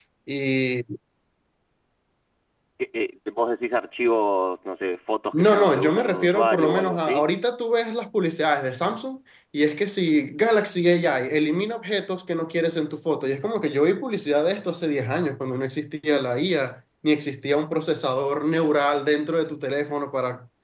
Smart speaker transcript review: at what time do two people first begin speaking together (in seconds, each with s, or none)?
5.3 s